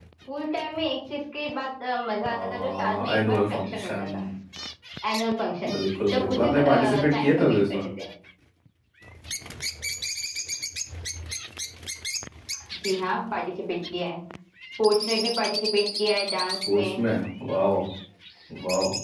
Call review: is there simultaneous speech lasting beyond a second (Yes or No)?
Yes